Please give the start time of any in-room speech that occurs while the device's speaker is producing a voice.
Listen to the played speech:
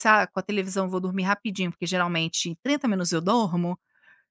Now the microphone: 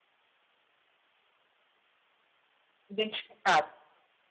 3 s

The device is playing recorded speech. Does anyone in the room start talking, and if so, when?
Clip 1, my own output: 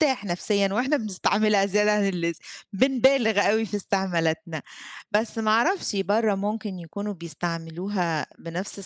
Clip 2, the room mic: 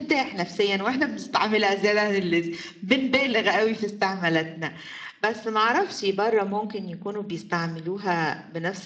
none

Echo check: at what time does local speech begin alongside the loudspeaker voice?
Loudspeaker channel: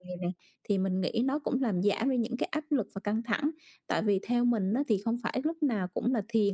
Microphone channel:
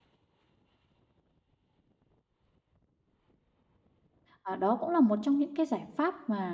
4 s

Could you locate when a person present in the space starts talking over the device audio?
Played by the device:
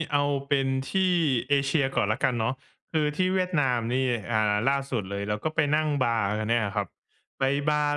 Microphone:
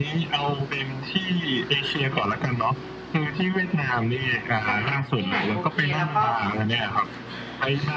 5 s

